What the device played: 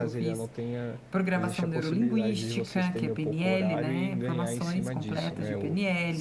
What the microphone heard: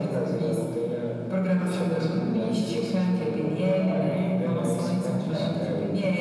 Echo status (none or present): present